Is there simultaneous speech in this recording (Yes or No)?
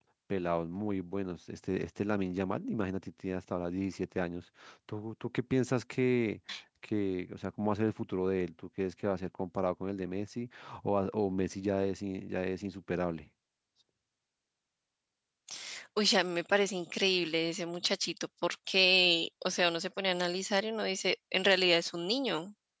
No